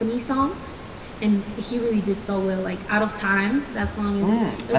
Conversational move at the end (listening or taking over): taking over